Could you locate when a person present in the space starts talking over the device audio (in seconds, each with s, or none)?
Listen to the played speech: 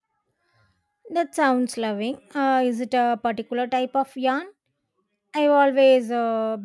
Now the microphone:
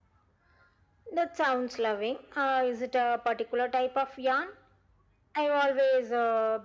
none